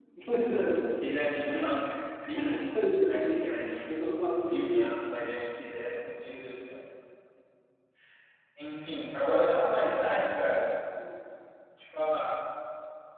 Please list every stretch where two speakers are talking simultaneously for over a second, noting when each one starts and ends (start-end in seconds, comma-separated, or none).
3.1-4.9